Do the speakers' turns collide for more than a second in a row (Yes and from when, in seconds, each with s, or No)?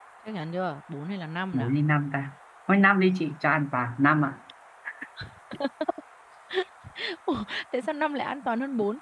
No